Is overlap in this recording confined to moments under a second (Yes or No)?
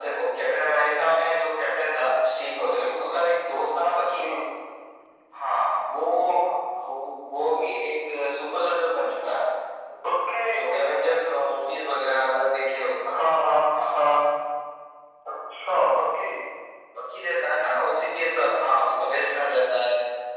Yes